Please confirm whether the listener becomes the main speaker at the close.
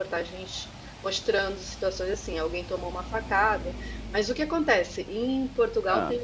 No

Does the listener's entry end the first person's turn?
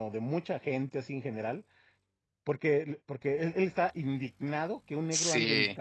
No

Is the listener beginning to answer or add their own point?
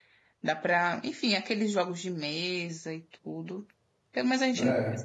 No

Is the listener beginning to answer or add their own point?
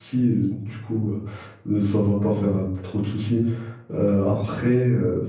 No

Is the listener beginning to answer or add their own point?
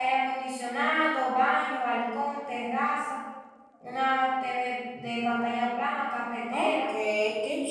Yes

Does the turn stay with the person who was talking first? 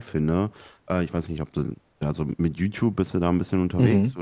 No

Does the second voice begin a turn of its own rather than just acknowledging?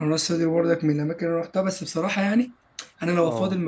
No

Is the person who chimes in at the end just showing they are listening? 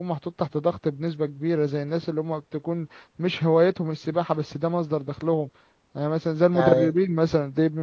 Yes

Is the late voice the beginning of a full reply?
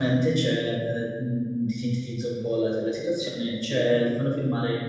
No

